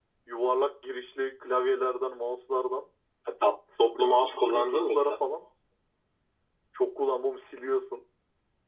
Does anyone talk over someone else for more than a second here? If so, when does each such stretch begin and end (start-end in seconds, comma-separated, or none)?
3.9-5.2